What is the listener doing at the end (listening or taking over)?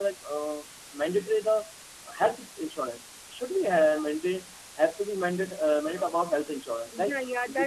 taking over